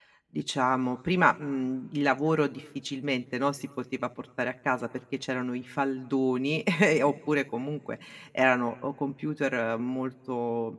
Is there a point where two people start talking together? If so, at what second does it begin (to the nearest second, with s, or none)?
none